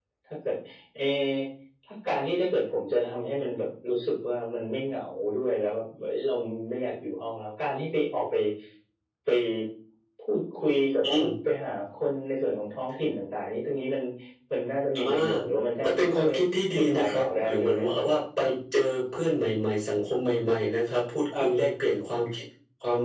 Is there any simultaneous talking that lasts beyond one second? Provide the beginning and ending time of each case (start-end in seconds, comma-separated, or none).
16.8-18.2